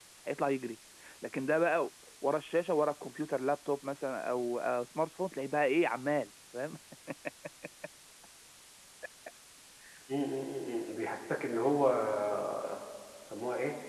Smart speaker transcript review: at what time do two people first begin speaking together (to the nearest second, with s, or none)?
none